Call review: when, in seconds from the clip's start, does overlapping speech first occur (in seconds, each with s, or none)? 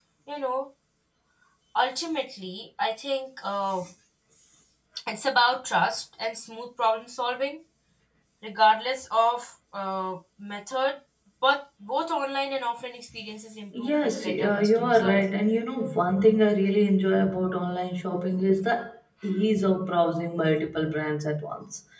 13.7 s